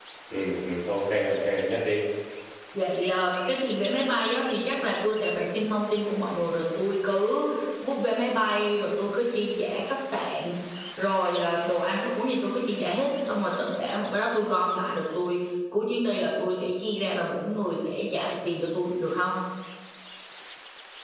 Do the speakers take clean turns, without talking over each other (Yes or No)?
Yes